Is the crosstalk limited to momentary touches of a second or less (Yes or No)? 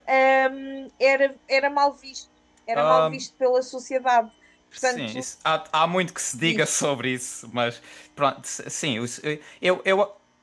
Yes